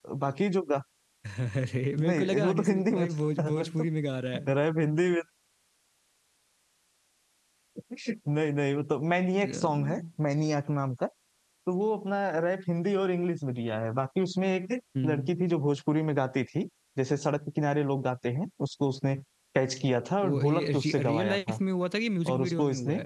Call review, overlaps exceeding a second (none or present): present